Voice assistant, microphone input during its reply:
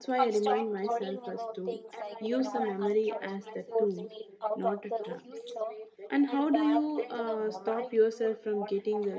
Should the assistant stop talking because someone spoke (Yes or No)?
Yes